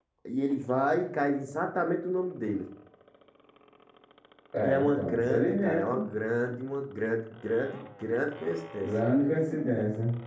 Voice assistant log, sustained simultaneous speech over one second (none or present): present